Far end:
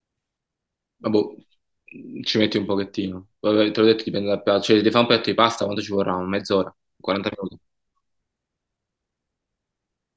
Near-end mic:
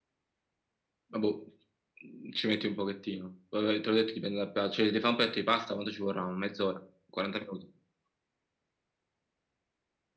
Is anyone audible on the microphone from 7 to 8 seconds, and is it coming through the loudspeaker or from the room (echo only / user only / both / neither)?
echo only